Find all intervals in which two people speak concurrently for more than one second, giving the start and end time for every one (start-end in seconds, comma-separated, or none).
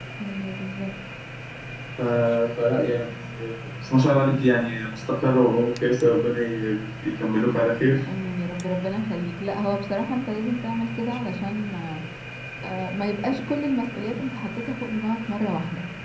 none